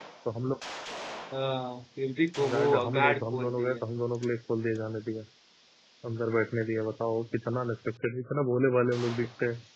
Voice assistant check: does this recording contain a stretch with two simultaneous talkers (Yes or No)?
Yes